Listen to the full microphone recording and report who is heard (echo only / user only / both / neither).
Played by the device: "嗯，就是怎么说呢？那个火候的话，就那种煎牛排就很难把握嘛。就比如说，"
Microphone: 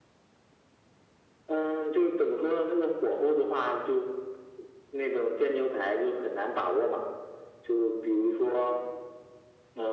echo only